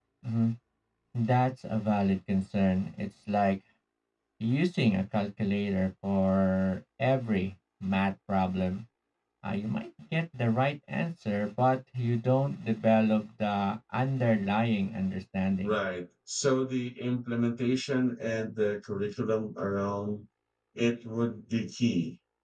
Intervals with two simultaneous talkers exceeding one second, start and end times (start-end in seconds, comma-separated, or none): none